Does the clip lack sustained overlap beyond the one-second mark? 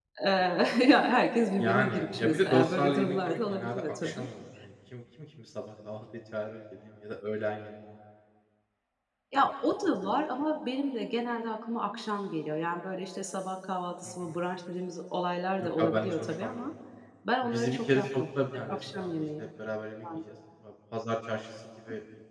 No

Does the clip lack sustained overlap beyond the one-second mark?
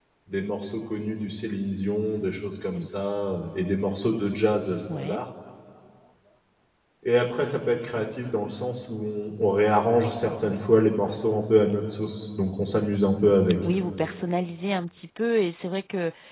Yes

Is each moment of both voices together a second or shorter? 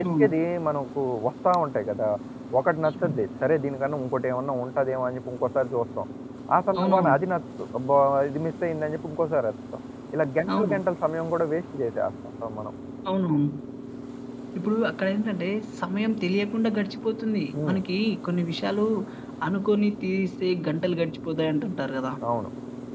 Yes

